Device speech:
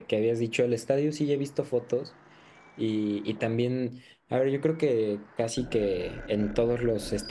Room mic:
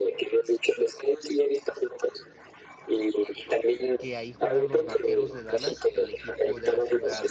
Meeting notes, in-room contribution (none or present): present